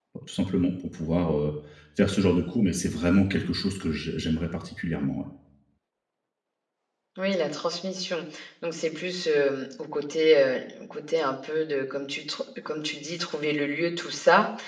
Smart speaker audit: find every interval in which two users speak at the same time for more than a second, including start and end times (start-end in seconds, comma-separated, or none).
none